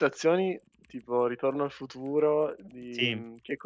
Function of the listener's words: listening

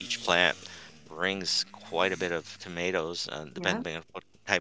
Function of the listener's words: listening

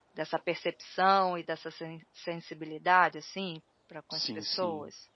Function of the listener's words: taking over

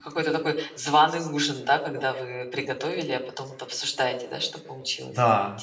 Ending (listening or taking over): taking over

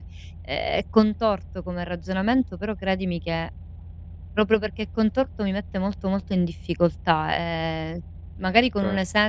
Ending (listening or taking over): listening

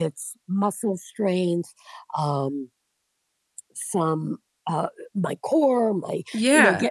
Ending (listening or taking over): listening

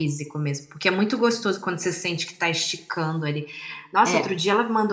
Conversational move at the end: listening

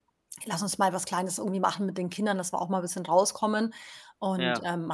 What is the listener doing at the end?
listening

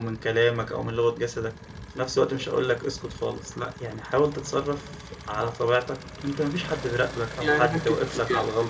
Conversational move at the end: taking over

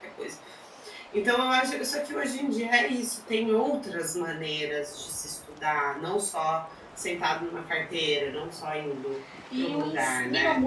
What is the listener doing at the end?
taking over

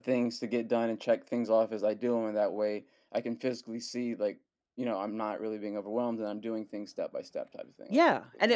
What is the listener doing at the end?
taking over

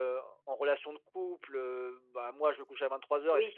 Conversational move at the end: listening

